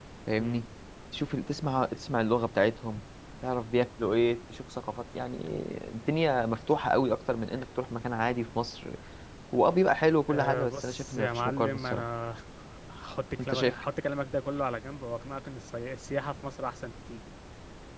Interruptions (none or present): present